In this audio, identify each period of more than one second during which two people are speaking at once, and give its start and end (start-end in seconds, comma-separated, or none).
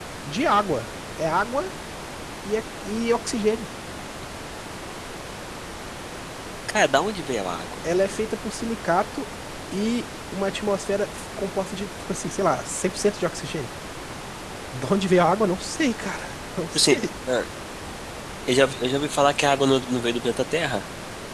none